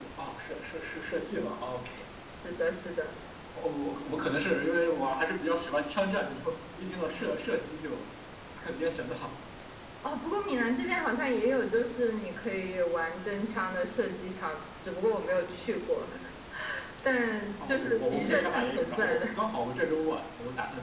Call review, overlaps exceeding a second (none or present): present